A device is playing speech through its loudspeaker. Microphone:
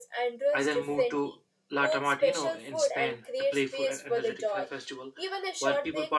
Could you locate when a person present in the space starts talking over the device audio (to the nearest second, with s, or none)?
1 s